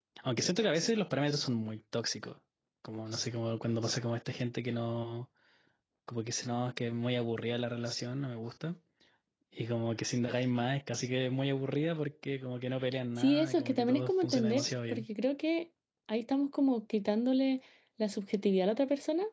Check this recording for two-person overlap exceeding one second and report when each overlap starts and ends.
13.2-15.1

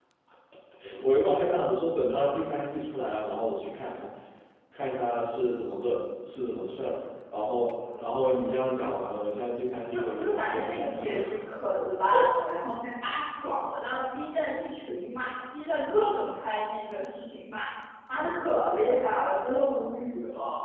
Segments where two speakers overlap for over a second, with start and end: 9.9-11.2

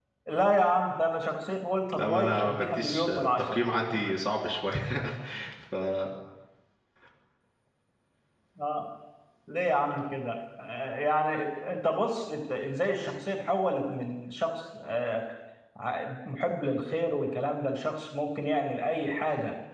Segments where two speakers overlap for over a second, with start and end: 1.9-3.6

